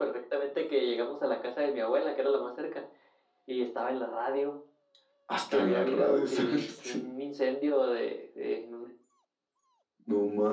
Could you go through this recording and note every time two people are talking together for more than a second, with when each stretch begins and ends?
5.5-7.0

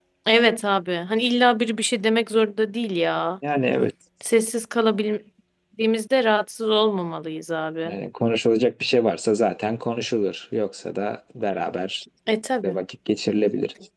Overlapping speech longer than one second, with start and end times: none

